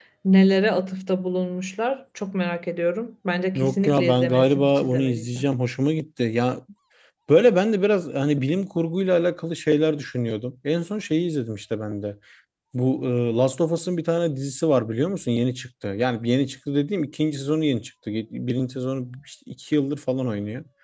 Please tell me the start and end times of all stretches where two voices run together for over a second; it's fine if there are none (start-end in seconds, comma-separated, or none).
3.5-5.4